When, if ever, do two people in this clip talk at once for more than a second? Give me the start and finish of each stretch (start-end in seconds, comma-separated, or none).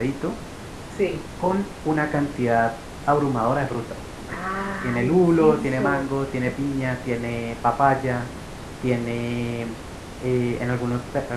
4.8-6.1